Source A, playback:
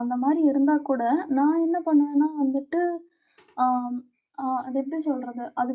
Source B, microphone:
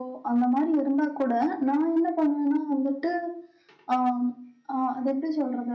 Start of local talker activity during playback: none

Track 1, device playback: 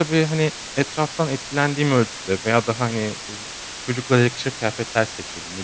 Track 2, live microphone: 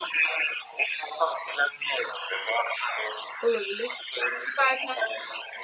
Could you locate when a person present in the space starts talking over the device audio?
3.4 s

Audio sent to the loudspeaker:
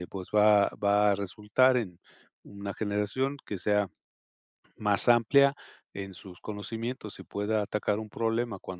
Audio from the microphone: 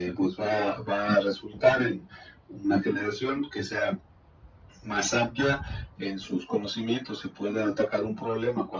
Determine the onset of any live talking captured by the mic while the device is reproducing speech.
none

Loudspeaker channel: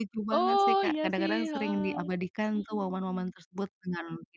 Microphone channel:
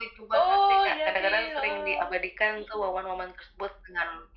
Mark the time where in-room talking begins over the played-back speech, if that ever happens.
none

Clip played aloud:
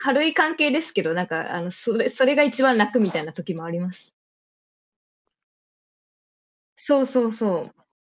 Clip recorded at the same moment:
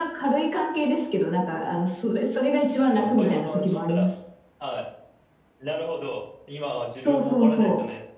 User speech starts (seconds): 2.9 s

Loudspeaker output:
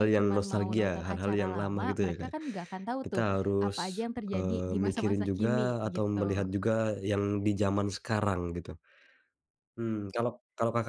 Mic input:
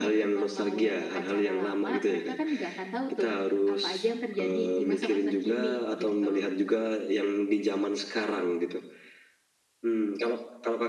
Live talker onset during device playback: none

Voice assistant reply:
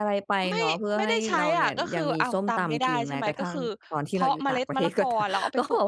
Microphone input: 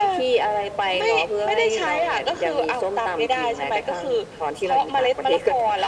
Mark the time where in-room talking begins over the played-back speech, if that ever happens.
none

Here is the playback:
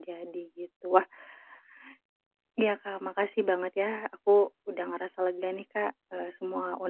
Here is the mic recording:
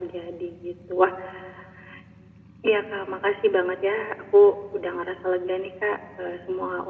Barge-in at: none

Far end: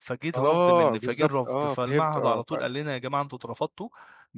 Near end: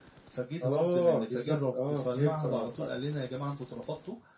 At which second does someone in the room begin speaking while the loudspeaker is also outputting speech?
none

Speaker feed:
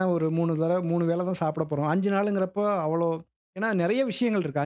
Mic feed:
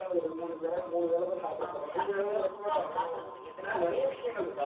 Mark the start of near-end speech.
1.6 s

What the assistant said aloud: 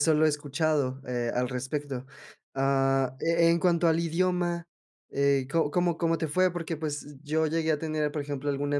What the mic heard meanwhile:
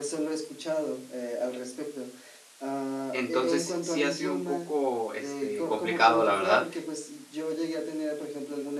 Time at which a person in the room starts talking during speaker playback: 3.1 s

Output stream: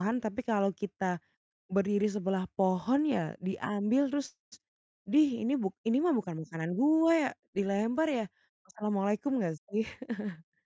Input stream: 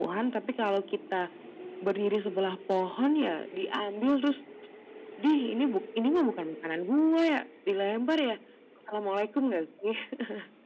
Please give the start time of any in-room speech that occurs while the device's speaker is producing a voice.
none

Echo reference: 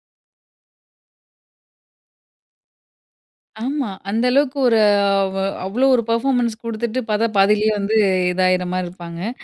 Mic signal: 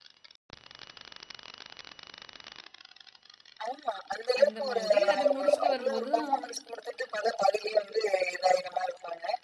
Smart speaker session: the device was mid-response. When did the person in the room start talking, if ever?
4.4 s

